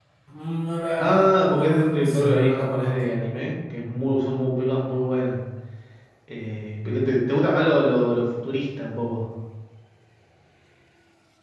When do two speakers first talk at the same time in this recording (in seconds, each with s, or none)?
1.0 s